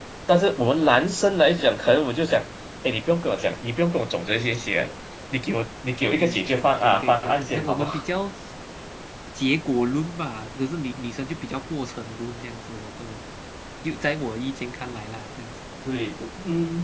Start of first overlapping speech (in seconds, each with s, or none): 6.2 s